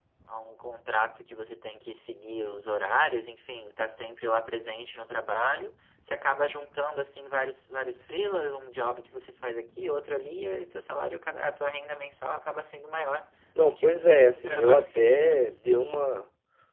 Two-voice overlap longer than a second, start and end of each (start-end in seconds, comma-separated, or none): 13.6-15.4